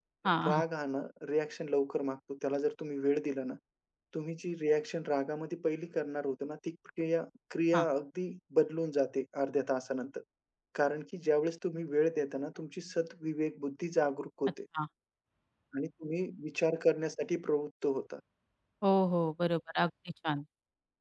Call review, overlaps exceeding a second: none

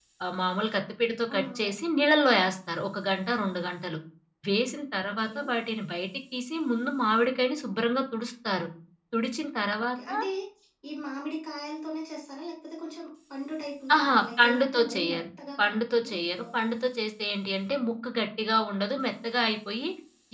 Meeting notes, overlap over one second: present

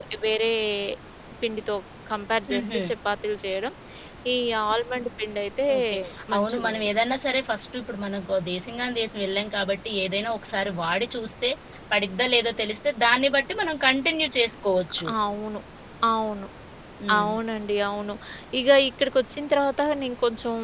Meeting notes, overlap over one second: none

